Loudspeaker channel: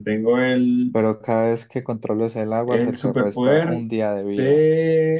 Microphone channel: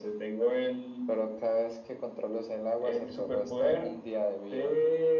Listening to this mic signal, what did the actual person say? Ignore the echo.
none

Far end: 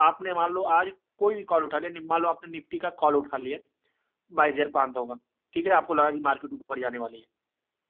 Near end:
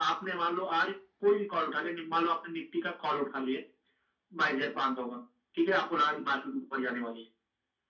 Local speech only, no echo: none

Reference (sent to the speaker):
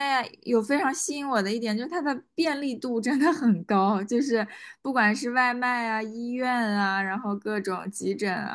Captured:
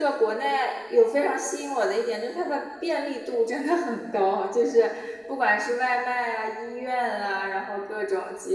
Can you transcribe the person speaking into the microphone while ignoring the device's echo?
none

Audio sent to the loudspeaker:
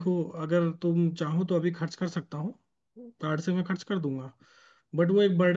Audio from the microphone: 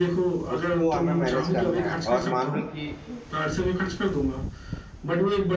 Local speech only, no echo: उसको हमें मैनेज करना है और मान लो कि

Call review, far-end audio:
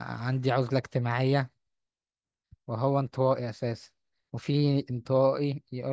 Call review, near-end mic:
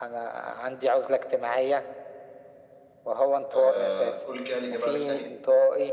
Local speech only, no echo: آه قول كده الإجابة ألف تاني

